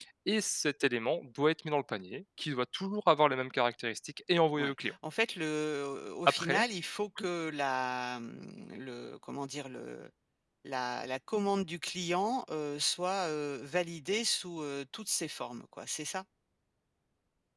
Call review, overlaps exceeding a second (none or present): none